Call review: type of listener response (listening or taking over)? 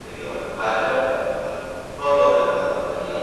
taking over